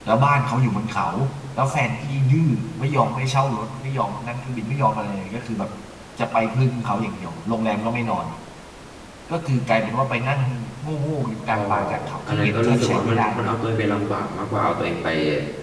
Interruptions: present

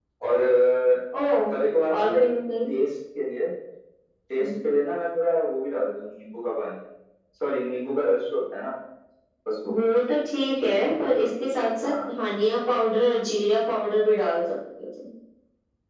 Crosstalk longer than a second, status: none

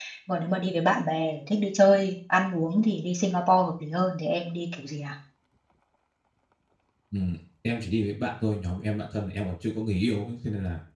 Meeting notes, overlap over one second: none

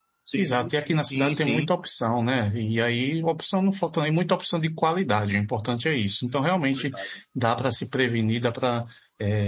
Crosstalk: present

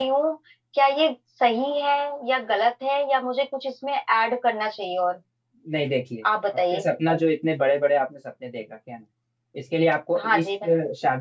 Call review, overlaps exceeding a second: none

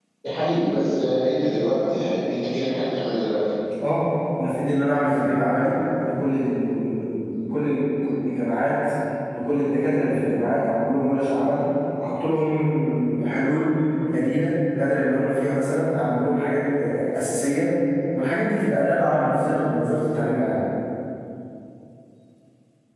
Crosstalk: none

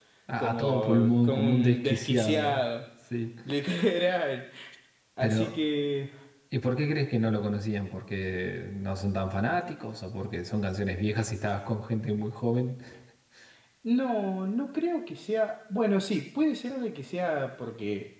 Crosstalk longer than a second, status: present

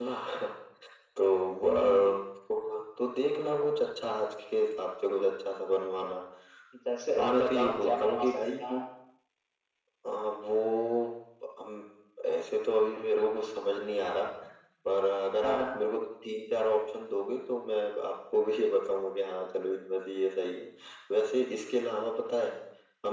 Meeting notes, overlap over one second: present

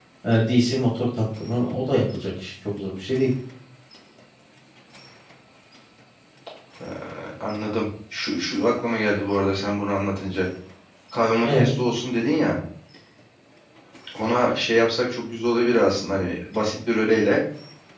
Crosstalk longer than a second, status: none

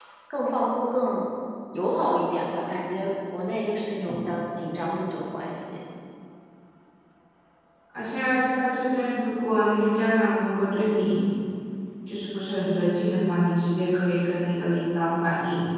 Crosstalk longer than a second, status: none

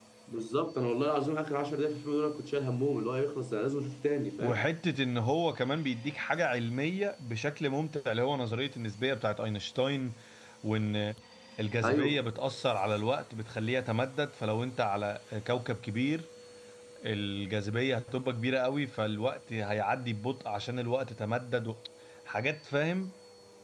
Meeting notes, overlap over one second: none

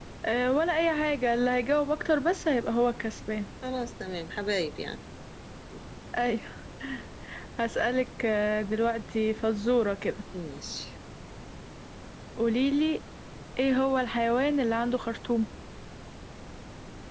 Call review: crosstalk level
none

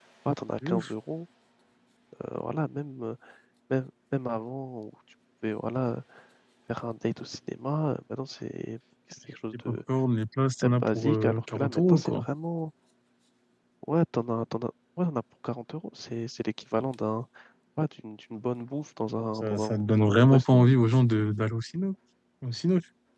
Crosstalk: present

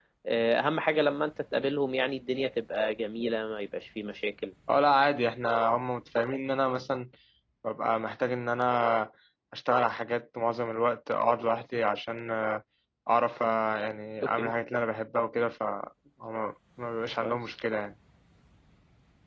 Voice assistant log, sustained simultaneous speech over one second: none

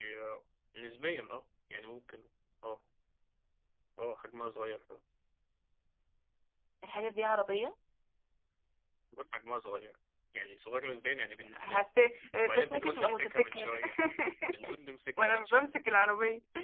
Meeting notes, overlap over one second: present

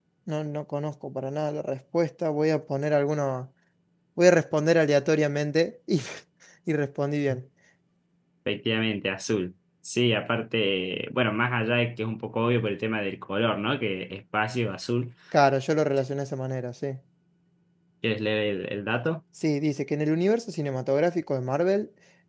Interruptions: none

